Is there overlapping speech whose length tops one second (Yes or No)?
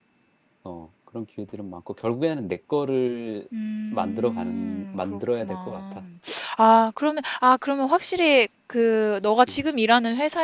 Yes